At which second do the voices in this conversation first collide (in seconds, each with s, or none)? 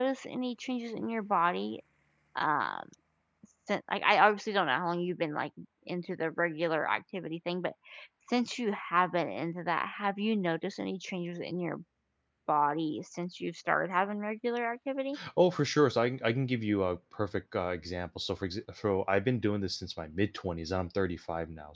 none